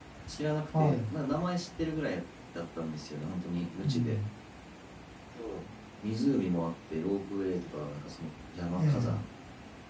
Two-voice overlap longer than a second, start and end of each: none

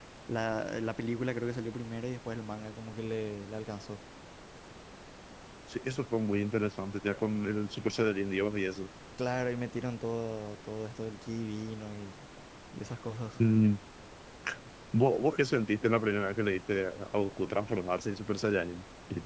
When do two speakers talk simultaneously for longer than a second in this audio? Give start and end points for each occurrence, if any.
none

